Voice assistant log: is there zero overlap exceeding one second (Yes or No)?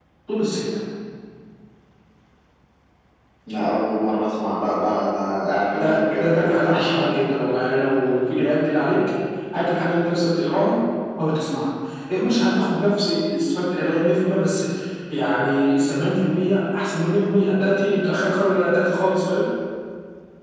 No